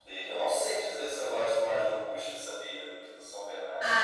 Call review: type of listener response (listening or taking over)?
taking over